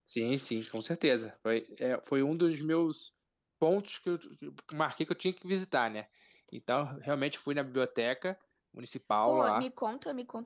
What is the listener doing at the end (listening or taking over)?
taking over